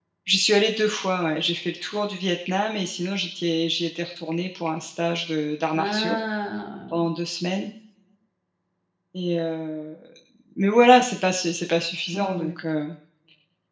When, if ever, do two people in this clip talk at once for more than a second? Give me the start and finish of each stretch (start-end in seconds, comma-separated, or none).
none